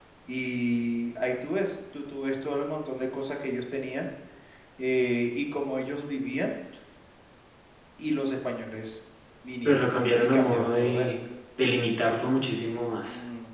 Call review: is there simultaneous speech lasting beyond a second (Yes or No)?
Yes